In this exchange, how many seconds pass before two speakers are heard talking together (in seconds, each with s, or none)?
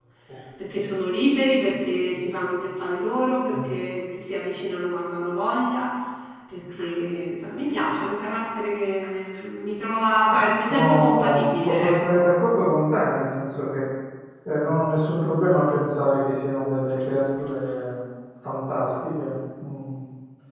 10.3 s